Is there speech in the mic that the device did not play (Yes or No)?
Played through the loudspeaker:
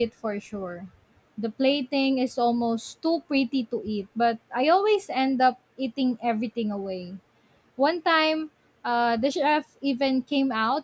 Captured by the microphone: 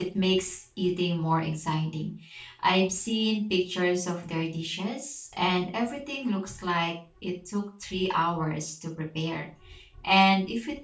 Yes